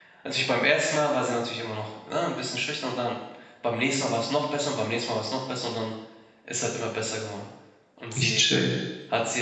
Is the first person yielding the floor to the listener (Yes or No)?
No